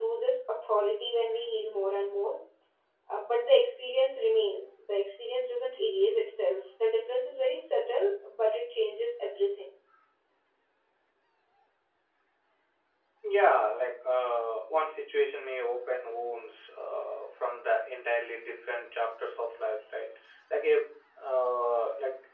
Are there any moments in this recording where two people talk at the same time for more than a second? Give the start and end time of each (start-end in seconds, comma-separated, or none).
none